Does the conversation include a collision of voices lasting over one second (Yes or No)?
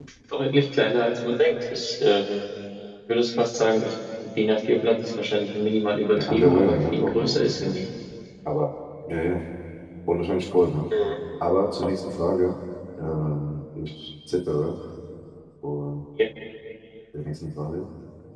Yes